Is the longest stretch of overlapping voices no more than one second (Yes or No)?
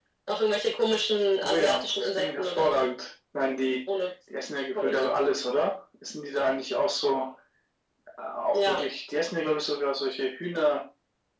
No